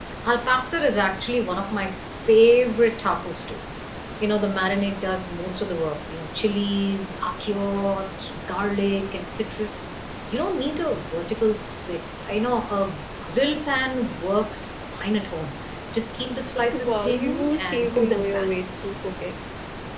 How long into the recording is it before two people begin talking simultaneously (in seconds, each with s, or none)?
16.7 s